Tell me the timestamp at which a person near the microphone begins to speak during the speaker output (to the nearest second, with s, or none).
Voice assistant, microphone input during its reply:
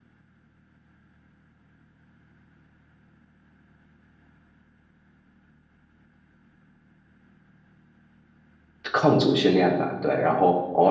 9 s